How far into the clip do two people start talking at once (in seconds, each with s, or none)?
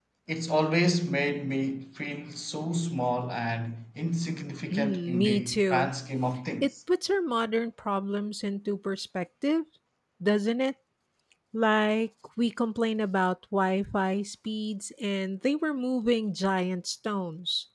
4.7 s